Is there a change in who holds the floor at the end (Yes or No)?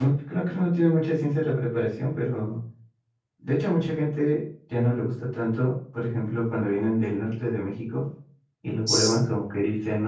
No